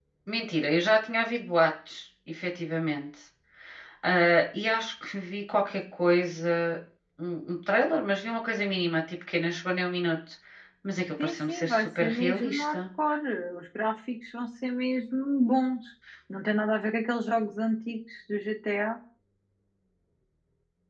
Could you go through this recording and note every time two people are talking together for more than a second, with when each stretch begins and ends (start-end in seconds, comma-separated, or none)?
11.2-12.8